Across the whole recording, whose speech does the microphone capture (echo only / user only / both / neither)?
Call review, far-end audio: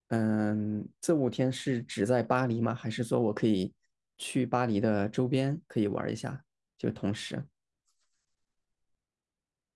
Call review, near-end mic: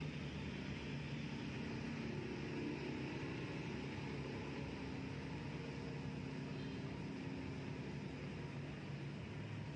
neither